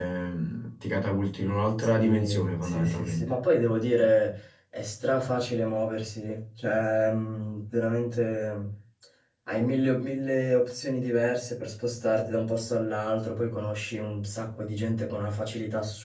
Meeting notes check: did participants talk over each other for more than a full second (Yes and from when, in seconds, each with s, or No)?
Yes, from 2.0 s